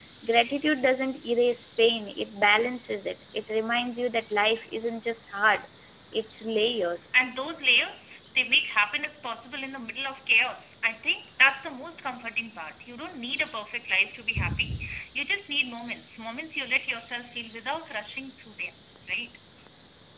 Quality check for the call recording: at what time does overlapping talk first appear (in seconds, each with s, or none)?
none